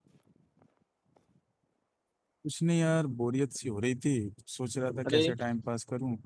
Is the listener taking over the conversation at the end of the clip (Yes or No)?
No